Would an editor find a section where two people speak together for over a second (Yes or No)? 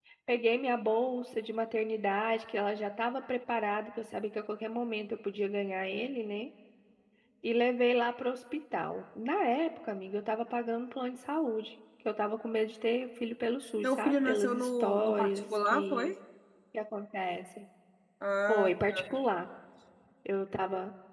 Yes